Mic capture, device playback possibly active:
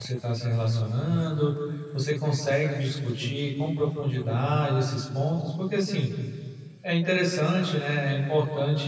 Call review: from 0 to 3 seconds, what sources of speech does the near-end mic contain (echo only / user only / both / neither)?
user only